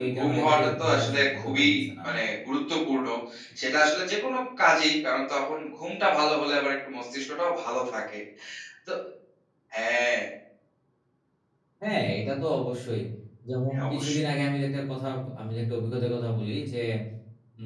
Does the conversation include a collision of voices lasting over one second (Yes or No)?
Yes